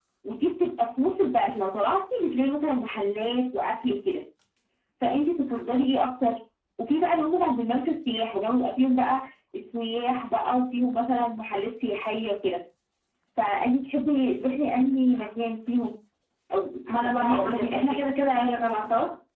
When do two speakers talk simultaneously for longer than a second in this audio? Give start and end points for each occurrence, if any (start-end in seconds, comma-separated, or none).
16.9-18.1